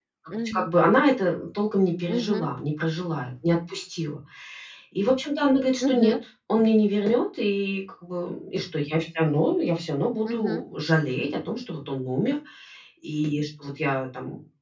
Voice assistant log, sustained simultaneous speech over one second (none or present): none